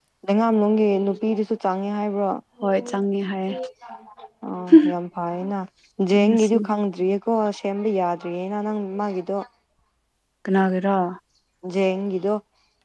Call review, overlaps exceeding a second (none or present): none